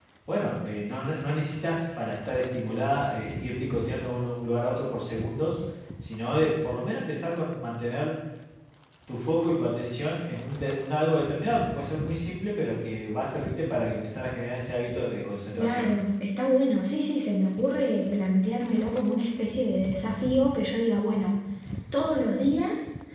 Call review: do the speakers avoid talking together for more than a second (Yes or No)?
Yes